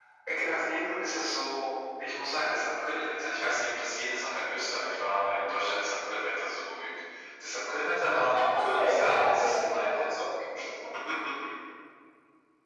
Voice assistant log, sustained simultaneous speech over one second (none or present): present